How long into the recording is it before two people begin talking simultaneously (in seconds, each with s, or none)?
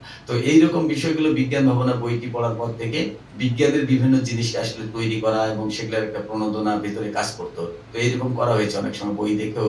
none